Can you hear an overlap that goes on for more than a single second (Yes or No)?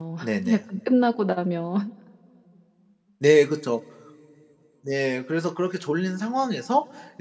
No